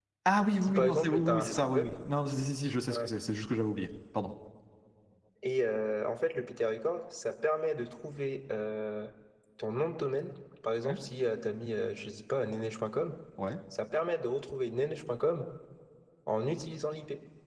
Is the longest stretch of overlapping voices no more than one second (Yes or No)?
No